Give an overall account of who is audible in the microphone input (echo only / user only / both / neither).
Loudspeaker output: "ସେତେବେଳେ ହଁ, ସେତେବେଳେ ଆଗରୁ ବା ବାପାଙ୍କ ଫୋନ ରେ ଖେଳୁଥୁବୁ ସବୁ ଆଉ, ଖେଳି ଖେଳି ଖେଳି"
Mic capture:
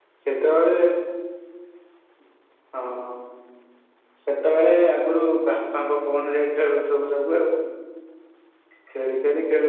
echo only